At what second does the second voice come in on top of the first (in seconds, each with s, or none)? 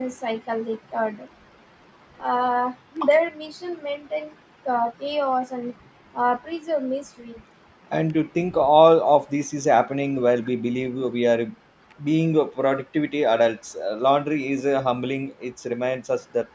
none